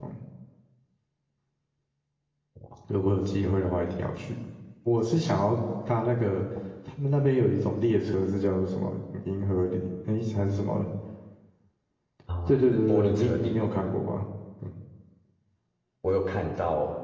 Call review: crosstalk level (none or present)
present